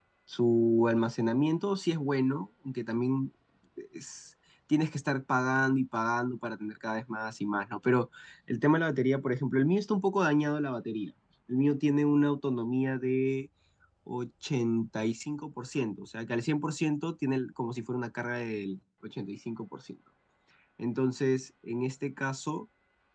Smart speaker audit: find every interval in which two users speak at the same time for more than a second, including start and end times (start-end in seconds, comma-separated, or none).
none